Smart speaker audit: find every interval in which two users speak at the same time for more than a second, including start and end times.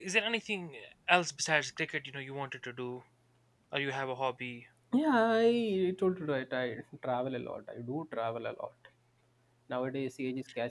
none

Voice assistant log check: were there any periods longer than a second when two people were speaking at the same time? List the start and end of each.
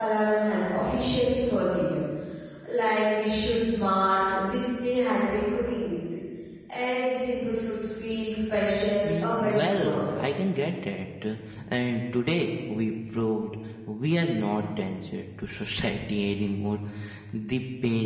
9.1-10.3

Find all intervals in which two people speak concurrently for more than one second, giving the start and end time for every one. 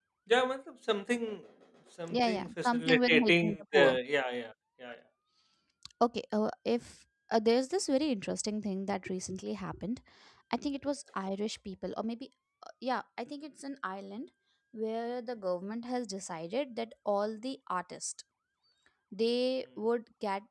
2.1-4.0

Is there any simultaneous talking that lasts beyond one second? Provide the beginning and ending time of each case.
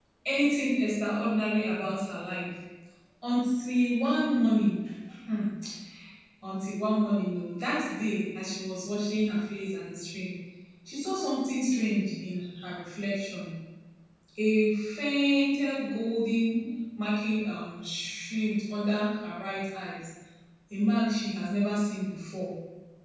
none

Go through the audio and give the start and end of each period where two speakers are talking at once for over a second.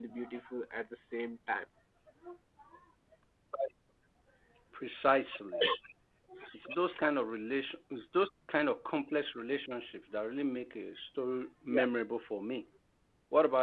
none

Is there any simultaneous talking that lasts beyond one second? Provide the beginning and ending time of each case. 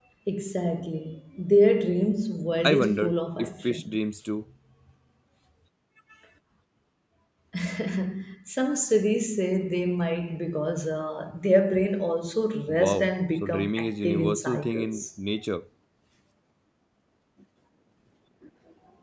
2.6-4.0, 12.7-15.0

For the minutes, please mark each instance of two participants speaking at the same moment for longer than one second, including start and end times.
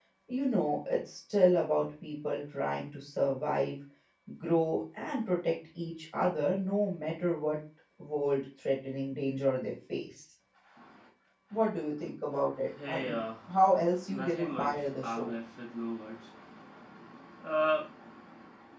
14.1-15.3

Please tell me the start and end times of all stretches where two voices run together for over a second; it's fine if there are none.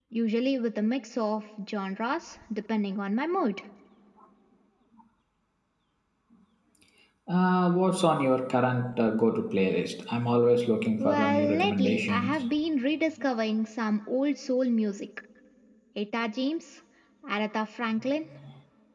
11.0-12.4

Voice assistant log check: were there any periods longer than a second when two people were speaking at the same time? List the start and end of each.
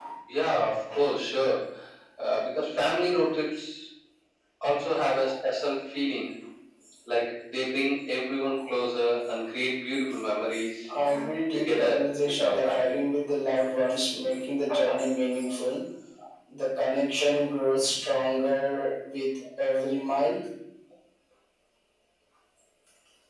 11.5-12.9

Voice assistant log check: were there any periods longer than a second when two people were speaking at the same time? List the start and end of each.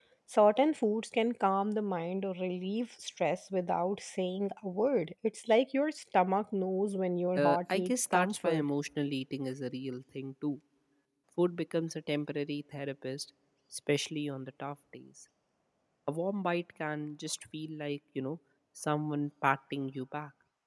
7.4-8.6

